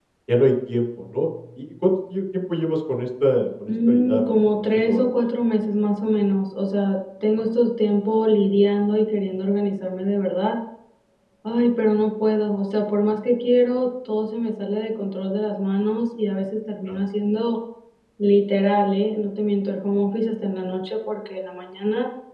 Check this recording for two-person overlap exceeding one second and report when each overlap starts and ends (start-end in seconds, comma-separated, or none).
3.7-5.1